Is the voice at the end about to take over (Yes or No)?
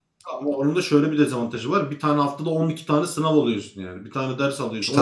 Yes